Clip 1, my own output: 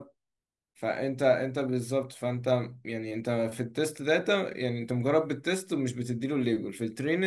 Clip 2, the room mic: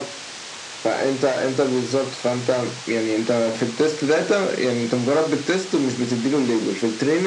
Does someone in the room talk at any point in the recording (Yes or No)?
No